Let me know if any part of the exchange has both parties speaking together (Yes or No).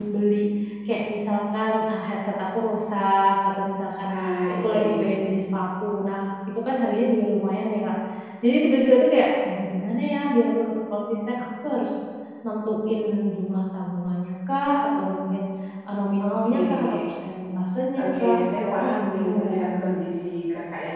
Yes